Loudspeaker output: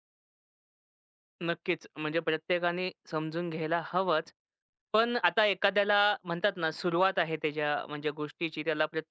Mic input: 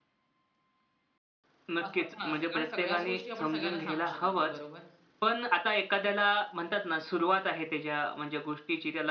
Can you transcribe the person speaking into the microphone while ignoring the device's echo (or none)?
असं पण असतं. कारण सगळ्याच गोष्टी आपण सगळ्यांना सांगू शकत नाही, बरोबर?